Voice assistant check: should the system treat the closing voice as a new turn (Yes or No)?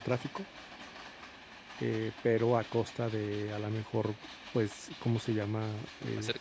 Yes